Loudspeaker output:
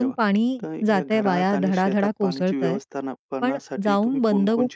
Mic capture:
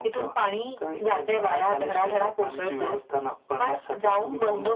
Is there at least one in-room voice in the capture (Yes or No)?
No